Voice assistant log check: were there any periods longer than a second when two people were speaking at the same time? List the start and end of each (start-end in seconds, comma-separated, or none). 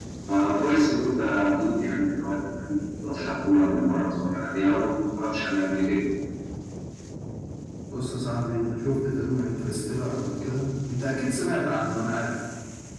none